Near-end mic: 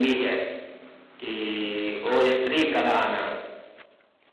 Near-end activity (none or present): none